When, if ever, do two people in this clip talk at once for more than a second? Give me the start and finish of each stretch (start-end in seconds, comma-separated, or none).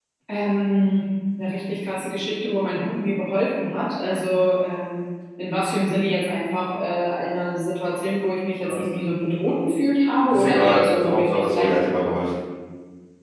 10.3-11.7